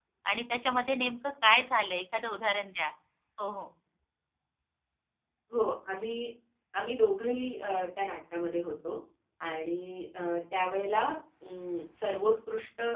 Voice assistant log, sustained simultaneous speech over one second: none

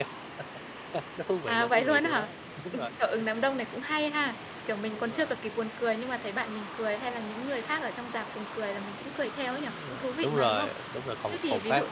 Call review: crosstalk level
present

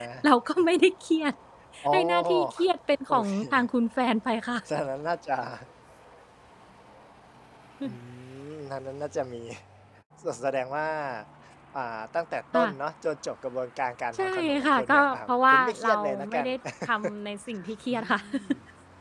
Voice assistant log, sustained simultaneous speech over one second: present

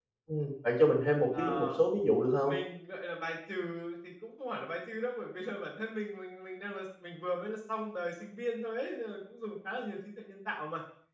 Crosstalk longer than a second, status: none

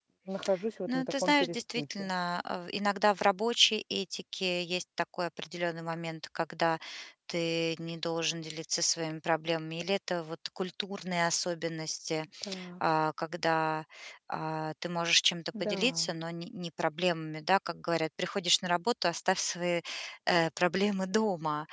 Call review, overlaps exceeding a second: present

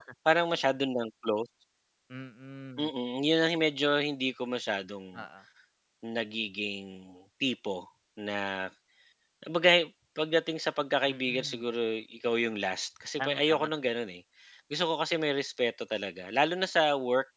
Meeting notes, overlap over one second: none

